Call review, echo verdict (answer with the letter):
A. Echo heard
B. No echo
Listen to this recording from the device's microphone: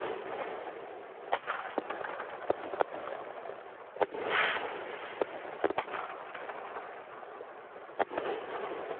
B